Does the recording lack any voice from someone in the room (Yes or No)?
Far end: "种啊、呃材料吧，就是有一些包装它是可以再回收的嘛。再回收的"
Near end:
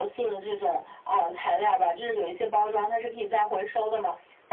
Yes